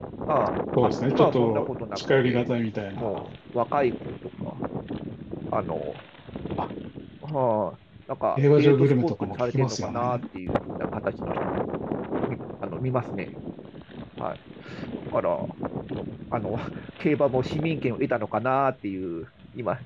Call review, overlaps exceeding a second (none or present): present